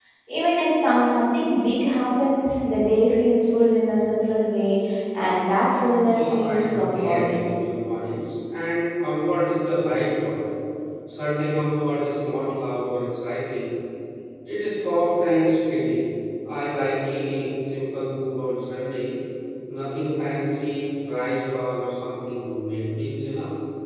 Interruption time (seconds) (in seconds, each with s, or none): 6.1 s